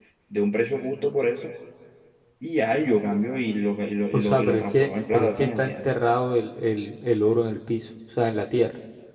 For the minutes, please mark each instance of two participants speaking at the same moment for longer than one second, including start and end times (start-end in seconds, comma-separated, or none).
4.1-5.9